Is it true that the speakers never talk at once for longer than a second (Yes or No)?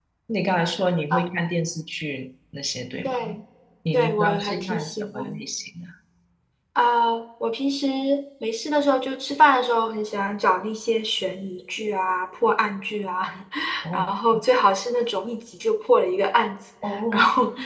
No